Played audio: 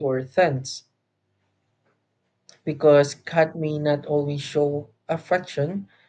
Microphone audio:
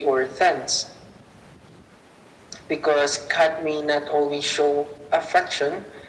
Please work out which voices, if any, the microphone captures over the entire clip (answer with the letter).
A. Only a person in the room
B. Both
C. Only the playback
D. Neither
C